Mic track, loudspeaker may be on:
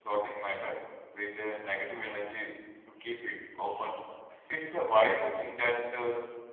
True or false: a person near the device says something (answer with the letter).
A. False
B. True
B